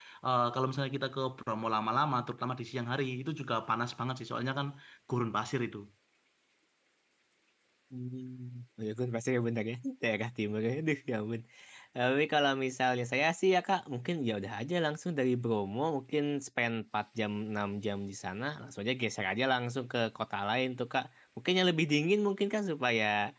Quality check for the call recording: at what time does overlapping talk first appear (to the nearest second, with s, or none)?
none